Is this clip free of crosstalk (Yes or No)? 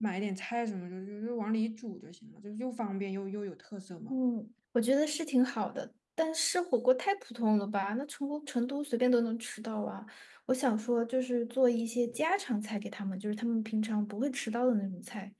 Yes